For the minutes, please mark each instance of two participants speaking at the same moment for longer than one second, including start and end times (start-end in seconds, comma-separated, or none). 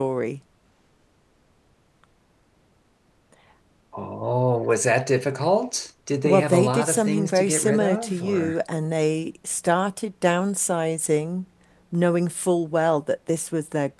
6.2-8.6